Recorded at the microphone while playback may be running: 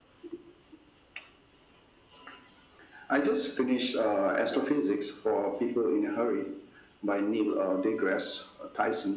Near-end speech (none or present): none